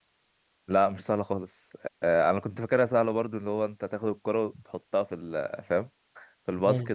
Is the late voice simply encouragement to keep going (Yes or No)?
Yes